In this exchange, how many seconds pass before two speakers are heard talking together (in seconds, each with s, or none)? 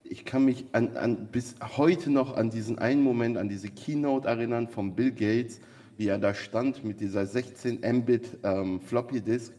none